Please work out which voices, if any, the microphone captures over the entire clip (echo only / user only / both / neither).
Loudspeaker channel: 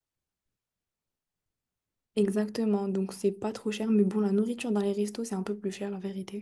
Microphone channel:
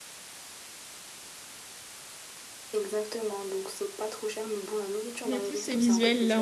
both